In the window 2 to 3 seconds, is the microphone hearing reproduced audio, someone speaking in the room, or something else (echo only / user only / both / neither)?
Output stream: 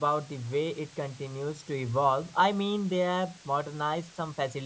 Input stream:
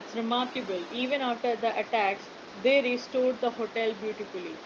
user only